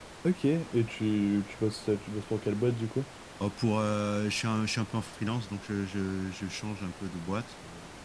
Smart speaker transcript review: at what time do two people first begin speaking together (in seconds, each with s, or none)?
none